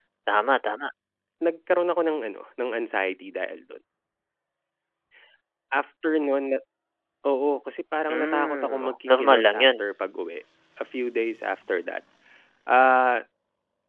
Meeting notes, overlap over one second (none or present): present